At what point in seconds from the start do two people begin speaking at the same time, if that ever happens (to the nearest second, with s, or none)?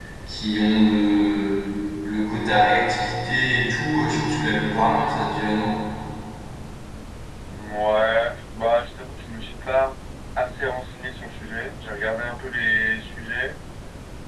none